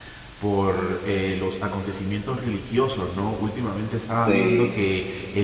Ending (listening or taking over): listening